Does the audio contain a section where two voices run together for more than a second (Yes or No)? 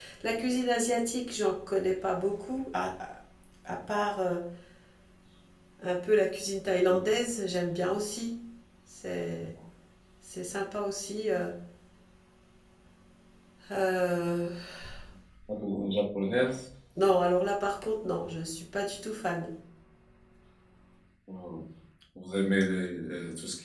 No